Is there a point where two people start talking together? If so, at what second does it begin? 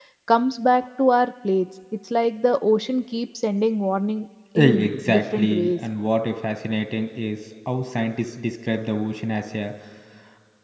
4.6 s

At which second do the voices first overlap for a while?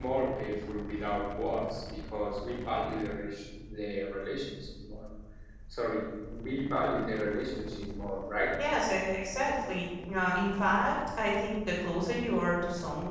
none

